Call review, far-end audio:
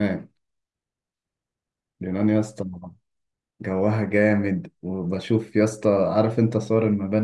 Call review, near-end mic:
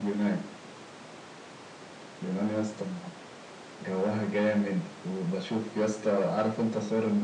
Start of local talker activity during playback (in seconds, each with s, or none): none